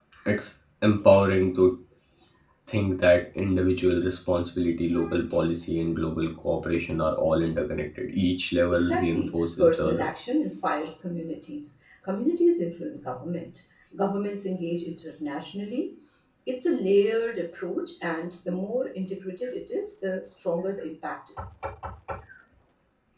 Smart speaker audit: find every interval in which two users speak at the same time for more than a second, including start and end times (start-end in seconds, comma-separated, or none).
8.7-10.1